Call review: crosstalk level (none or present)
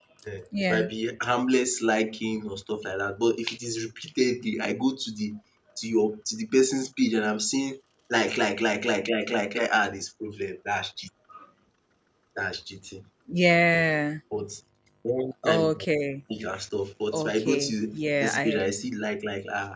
present